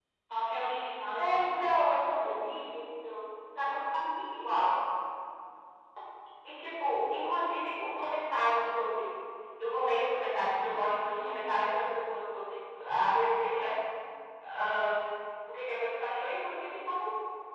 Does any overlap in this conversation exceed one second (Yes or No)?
No